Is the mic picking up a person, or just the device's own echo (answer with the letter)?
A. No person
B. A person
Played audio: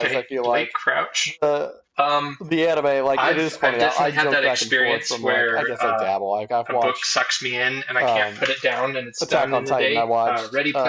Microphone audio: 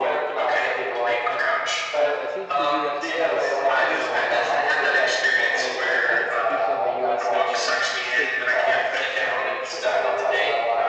B